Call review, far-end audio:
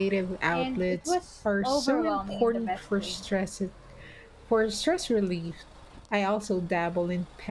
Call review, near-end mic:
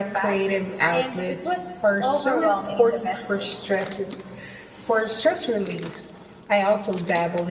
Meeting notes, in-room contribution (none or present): none